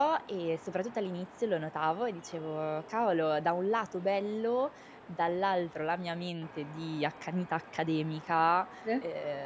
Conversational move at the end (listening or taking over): listening